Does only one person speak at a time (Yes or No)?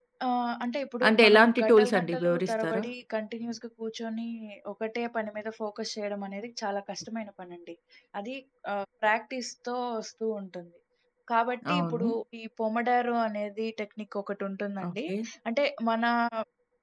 No